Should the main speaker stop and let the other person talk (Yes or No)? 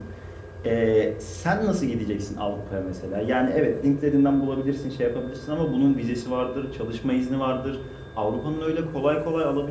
No